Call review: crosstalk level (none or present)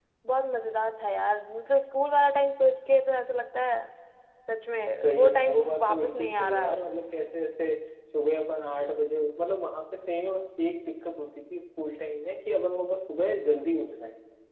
present